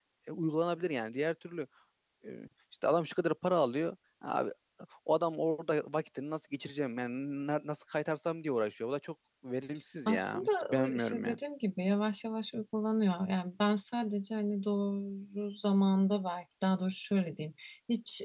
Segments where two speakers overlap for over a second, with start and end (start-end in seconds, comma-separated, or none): 10.1-11.4